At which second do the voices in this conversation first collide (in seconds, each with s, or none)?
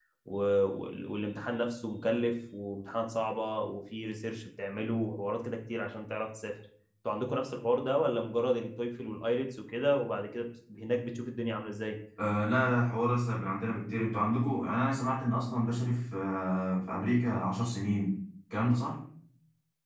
none